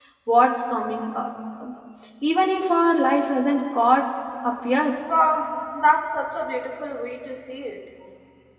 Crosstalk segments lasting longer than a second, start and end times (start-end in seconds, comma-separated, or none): none